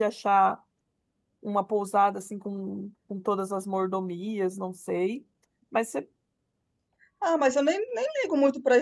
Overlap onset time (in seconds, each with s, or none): none